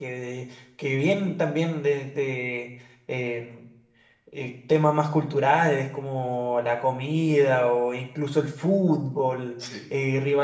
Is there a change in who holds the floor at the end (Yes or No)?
No